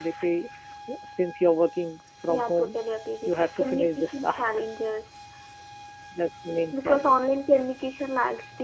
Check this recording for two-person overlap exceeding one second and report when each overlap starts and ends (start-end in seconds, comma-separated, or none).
3.2-4.5